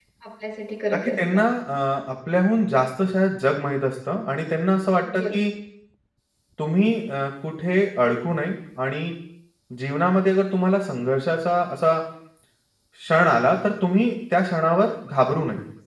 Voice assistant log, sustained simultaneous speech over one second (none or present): none